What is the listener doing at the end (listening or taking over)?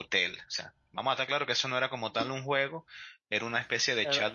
listening